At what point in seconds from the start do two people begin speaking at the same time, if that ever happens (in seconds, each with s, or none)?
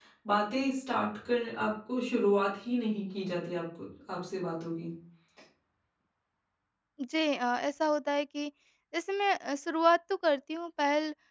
none